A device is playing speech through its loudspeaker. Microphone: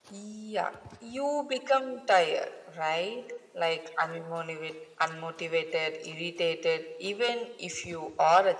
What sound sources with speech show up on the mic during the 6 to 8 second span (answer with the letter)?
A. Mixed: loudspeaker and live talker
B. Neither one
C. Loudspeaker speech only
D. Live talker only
C